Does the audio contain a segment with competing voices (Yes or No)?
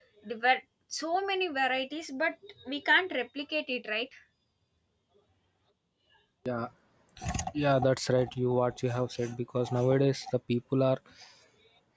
No